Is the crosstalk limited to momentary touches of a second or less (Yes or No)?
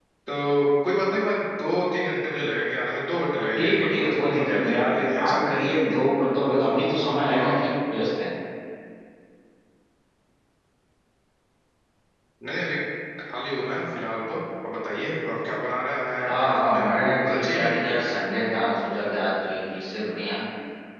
No